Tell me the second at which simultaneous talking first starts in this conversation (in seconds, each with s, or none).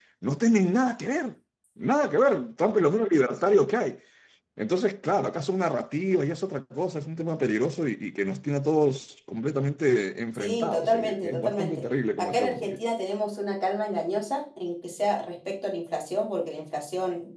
10.3 s